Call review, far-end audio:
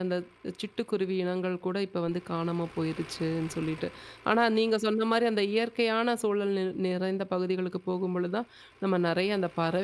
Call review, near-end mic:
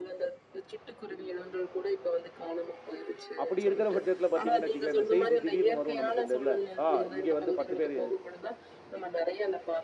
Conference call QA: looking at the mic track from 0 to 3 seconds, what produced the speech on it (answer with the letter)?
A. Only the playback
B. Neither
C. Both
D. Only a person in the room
A